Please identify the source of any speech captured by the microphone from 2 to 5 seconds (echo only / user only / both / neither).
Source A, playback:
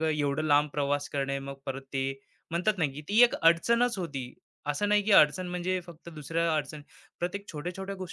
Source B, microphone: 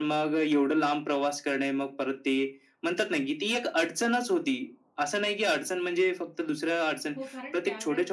echo only